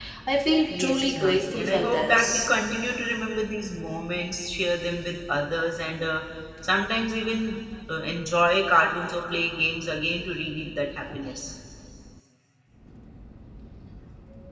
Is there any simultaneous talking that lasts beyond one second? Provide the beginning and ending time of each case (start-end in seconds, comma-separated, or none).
0.8-2.5